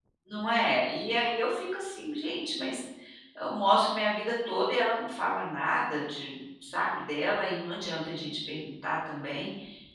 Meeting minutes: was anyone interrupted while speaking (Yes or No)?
No